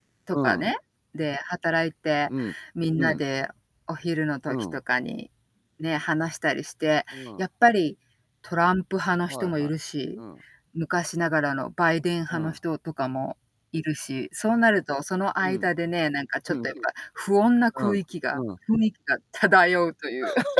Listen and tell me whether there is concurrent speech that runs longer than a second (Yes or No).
No